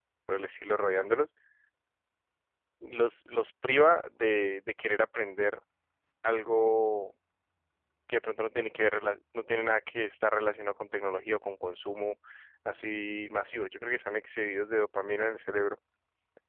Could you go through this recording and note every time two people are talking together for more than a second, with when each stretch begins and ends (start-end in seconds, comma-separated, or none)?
none